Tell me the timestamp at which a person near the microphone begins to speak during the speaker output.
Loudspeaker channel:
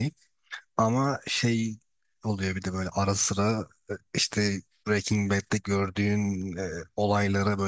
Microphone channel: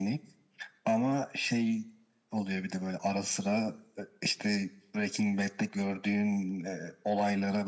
none

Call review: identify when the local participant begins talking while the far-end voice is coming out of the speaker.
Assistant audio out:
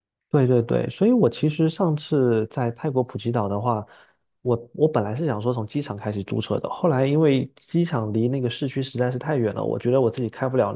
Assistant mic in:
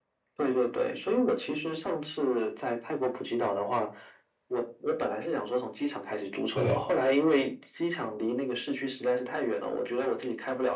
6.5 s

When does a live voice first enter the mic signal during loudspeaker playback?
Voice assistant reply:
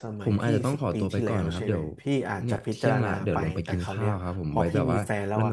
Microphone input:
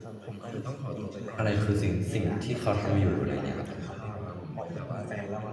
1.4 s

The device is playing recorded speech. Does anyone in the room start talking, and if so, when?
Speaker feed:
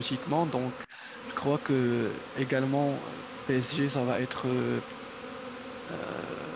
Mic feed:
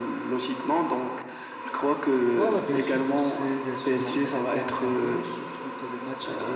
1.8 s

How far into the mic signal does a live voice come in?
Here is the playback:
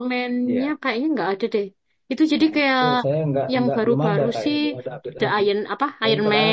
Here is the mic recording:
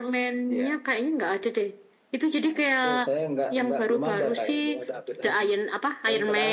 none

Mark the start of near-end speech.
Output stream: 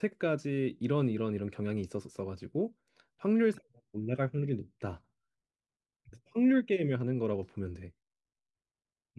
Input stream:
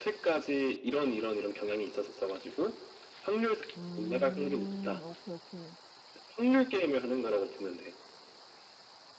3.8 s

